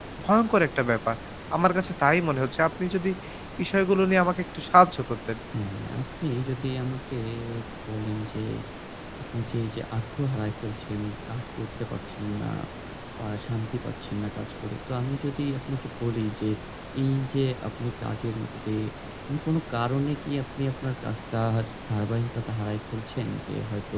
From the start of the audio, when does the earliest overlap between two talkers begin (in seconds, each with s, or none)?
none